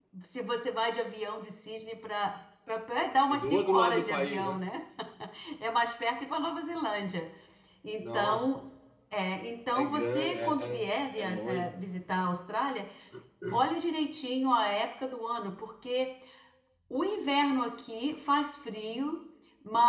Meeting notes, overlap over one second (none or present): present